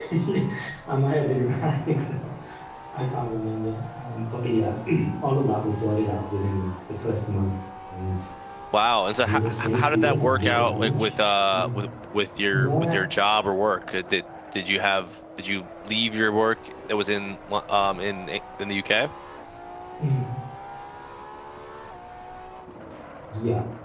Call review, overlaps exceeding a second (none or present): present